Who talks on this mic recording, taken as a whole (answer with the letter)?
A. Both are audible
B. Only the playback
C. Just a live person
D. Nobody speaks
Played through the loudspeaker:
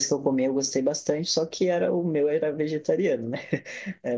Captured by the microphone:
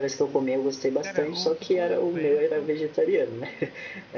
A